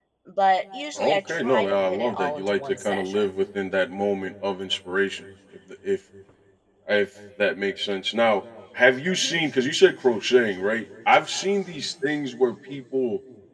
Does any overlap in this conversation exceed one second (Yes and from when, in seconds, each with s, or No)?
Yes, from 1.0 s